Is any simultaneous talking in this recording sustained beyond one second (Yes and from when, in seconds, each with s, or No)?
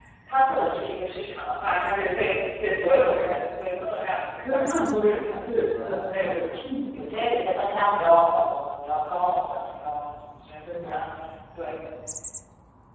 Yes, from 4.4 s